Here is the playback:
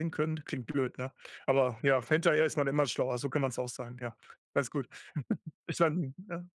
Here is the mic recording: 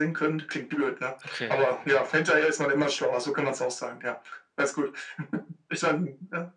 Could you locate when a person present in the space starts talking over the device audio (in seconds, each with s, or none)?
1.2 s